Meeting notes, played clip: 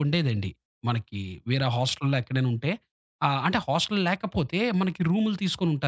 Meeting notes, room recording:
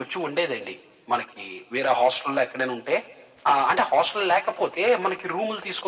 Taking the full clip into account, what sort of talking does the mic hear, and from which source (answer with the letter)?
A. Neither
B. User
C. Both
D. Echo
D